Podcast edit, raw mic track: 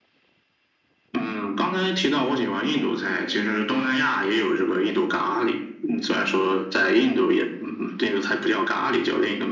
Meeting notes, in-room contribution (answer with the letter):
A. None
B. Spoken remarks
A